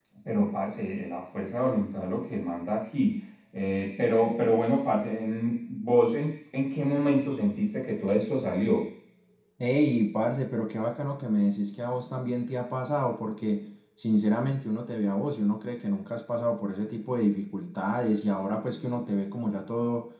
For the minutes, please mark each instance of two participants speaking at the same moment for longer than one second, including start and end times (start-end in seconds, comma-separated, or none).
none